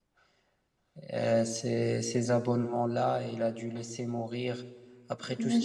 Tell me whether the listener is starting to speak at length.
No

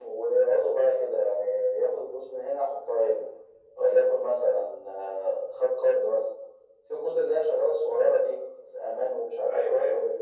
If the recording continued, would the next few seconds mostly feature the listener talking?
Yes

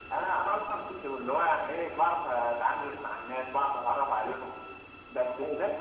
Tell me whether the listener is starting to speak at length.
No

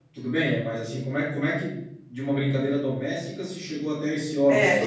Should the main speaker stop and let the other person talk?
Yes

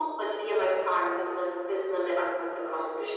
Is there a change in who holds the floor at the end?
No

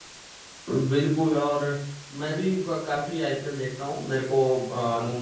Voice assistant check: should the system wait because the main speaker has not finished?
Yes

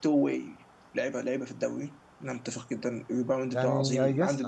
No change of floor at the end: No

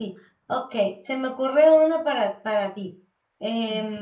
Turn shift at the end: No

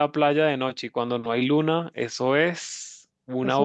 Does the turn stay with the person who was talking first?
No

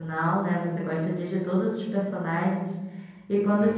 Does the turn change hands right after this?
No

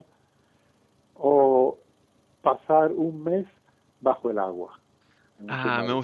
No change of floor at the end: No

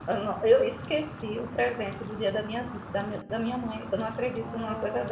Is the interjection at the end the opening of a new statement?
Yes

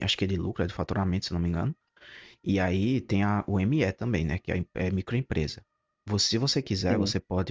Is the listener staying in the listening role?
Yes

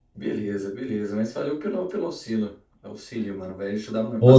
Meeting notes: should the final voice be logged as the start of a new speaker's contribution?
Yes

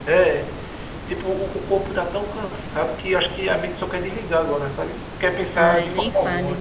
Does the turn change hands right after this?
Yes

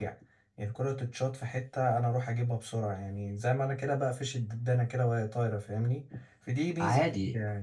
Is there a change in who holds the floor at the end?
Yes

